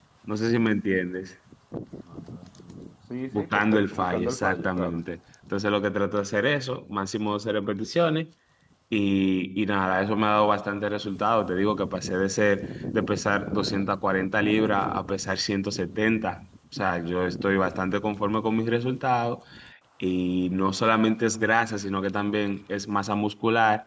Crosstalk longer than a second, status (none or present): present